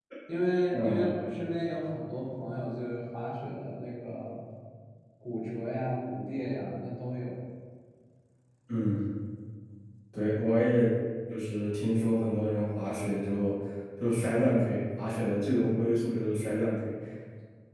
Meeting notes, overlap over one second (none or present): none